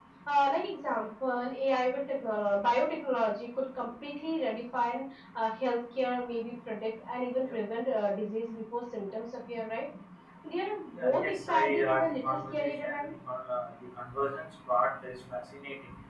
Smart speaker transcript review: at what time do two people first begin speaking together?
11 s

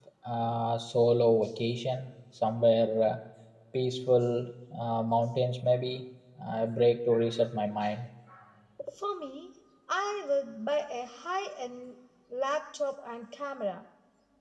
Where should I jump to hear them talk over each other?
none

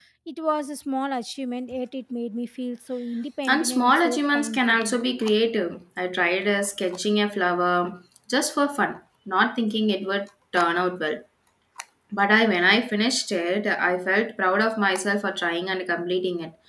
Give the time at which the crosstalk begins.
3 s

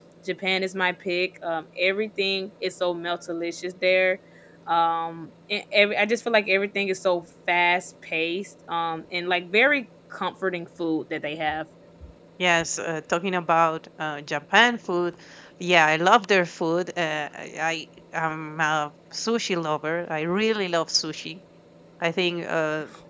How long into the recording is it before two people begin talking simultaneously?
none

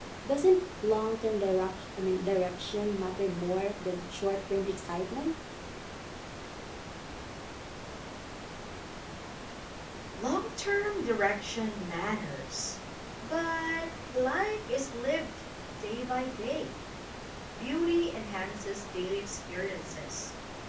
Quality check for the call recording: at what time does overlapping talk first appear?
none

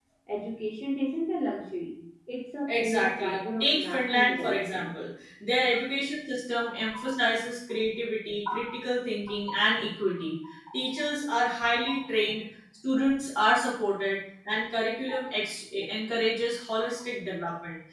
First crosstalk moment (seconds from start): 3 s

